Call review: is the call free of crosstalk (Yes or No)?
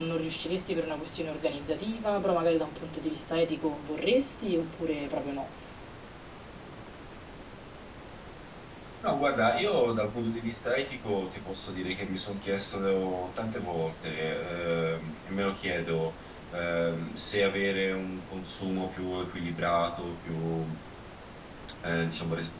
Yes